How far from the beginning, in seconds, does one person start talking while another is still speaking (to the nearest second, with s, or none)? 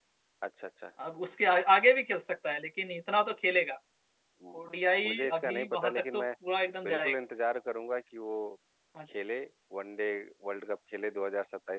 5 s